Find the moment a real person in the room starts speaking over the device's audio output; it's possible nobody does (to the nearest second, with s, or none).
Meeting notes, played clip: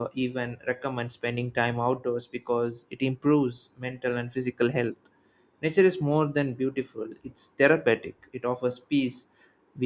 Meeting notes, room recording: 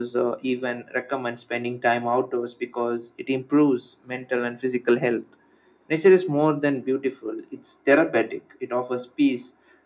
none